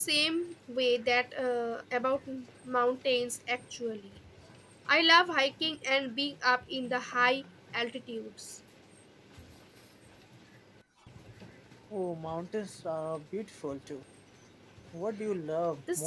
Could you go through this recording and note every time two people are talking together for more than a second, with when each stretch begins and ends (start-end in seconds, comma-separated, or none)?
none